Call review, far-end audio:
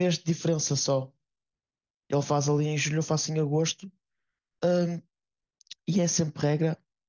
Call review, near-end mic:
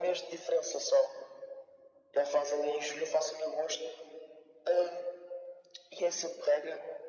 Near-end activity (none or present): none